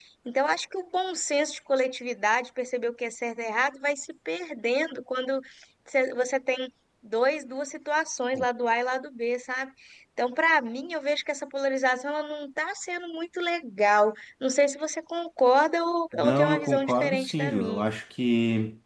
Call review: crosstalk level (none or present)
present